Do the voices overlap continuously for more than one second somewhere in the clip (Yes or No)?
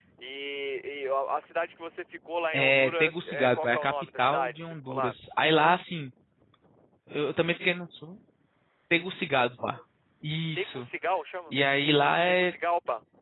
Yes